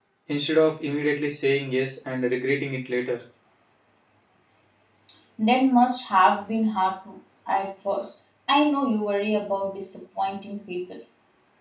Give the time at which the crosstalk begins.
none

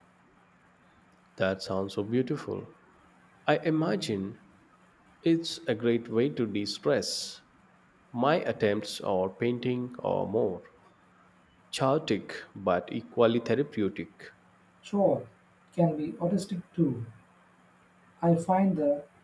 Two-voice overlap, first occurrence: none

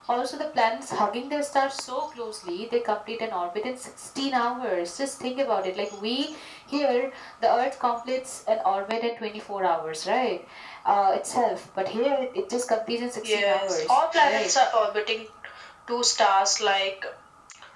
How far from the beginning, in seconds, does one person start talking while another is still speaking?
13.2 s

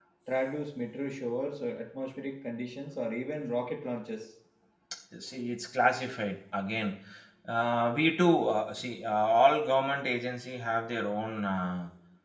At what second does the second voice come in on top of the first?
none

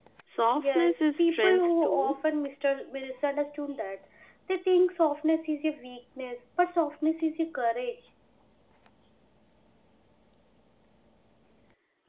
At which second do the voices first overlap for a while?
0.6 s

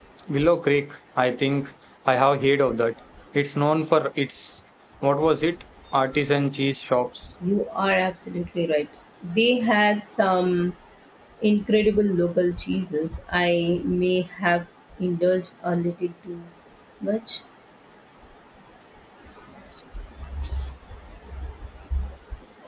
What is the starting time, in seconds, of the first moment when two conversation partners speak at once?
none

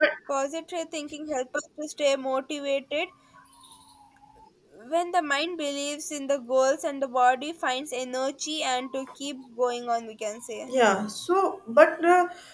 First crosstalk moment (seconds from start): none

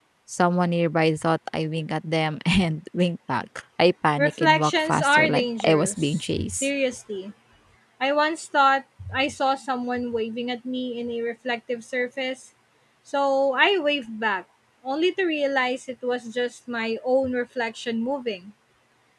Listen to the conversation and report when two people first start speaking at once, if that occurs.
4.2 s

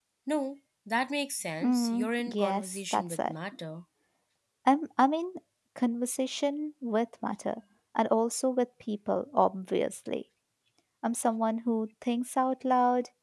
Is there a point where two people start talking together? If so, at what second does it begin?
1.6 s

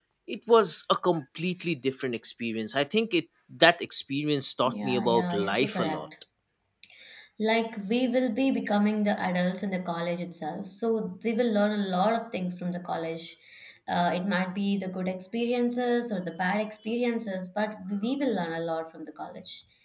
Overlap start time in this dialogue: 4.6 s

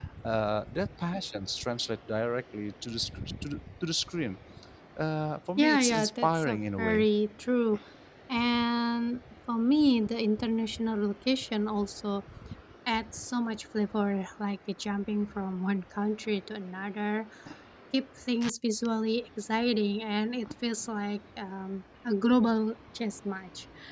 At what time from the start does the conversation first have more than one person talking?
5.6 s

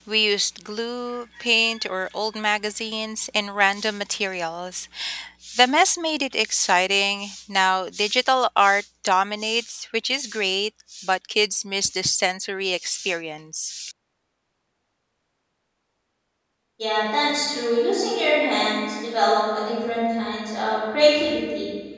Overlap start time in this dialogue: none

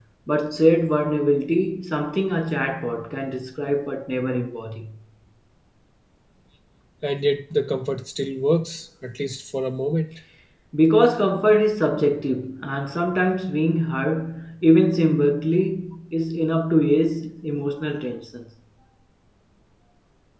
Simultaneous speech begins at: none

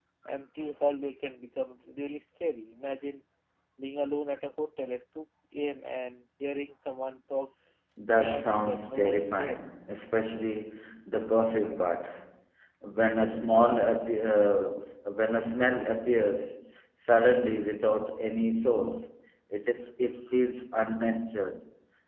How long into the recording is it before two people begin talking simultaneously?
8.2 s

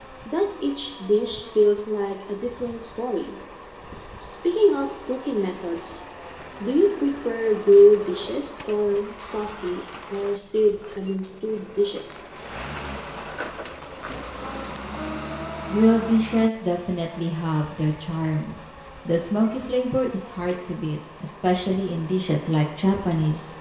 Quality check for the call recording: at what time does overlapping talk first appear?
none

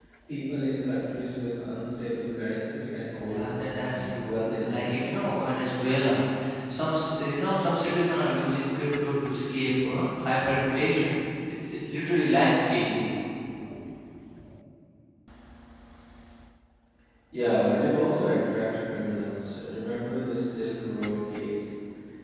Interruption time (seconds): 3.3 s

